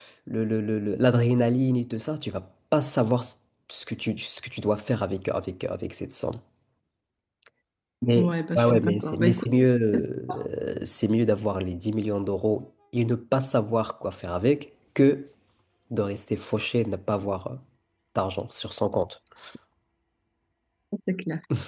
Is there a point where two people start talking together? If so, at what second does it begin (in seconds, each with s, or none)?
8.2 s